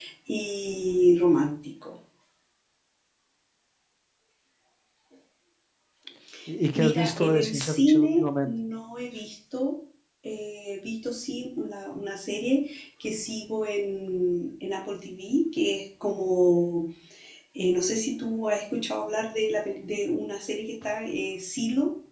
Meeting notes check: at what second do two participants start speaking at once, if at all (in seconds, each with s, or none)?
6.8 s